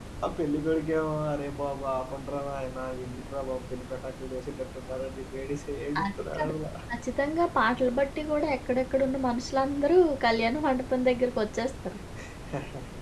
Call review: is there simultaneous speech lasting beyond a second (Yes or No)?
No